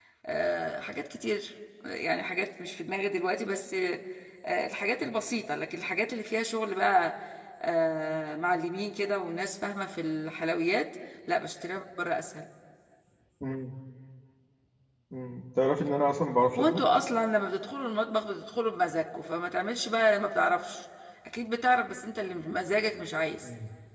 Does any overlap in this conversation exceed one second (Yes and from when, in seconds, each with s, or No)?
No